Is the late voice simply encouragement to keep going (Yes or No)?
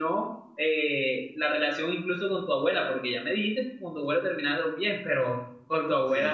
Yes